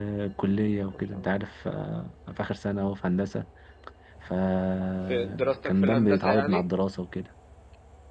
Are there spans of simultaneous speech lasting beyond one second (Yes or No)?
Yes